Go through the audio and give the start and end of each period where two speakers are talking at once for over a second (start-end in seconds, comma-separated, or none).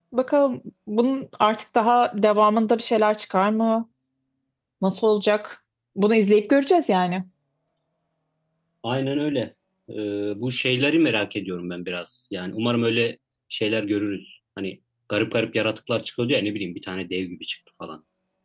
none